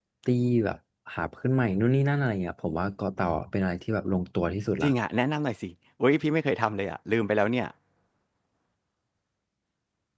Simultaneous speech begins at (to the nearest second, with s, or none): none